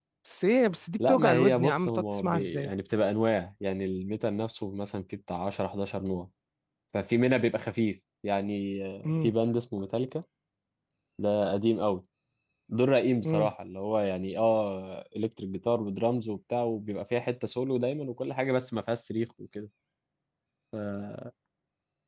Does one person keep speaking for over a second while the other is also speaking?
Yes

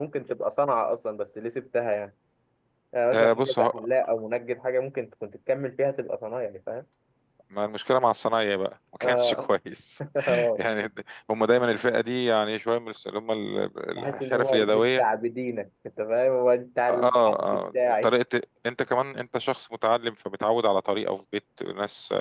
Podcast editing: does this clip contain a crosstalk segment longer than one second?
Yes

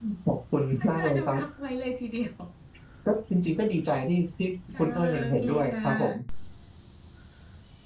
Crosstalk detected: Yes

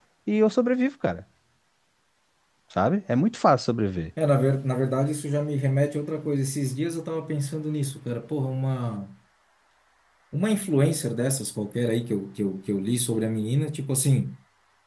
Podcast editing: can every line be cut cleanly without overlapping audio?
Yes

